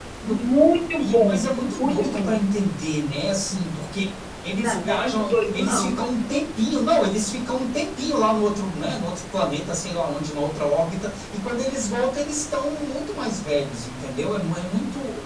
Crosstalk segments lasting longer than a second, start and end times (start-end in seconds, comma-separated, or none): 1.0-2.4, 4.6-5.9